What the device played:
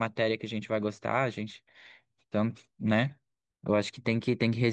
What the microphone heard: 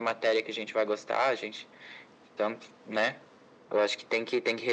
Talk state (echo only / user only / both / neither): echo only